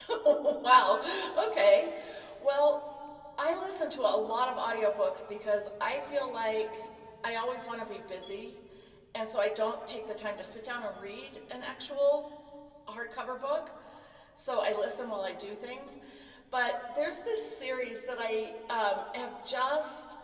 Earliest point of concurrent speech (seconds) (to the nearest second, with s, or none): none